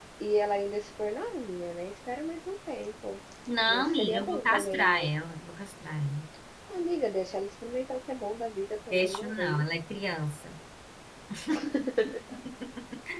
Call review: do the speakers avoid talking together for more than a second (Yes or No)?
No